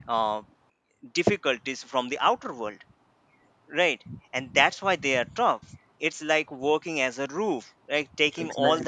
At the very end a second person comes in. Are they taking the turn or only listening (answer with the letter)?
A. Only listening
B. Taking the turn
A